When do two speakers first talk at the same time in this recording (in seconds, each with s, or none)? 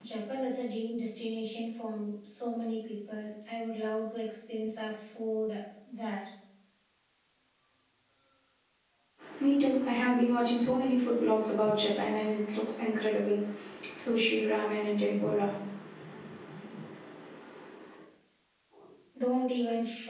none